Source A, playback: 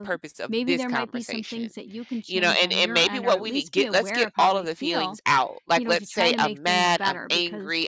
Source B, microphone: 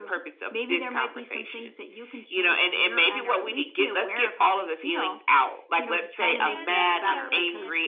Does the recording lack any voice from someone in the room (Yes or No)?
No